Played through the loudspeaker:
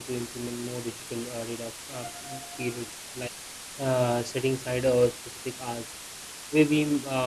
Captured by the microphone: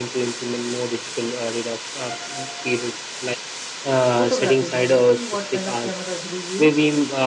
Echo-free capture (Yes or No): No